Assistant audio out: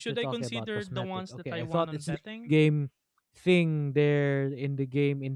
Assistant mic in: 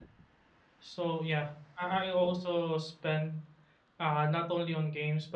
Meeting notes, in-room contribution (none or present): present